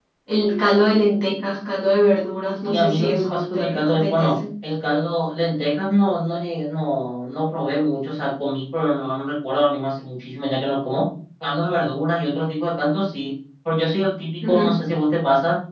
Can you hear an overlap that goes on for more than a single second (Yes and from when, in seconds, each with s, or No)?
Yes, from 2.6 s